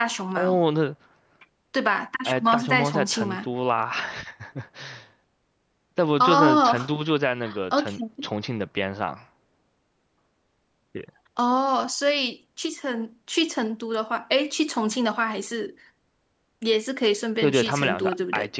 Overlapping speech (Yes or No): Yes